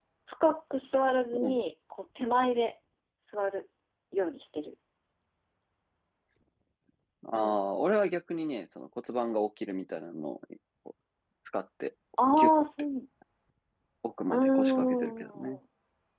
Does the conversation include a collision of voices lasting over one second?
Yes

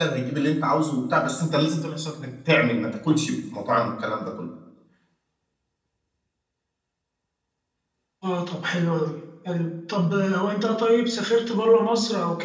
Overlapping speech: No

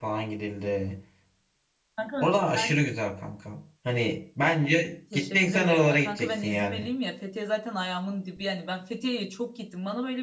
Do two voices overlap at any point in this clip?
Yes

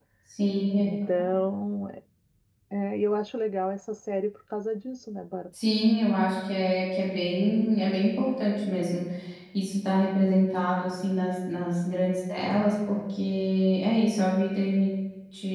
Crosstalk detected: No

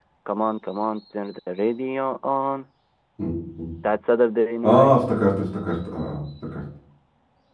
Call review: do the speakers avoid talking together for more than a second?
Yes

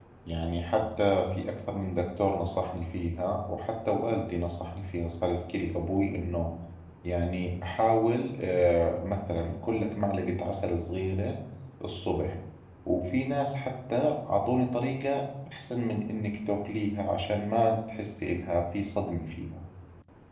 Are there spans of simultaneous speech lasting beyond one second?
No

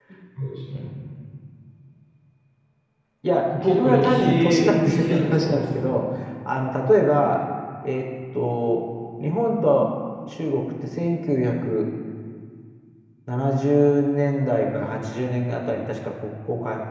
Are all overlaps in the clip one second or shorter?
No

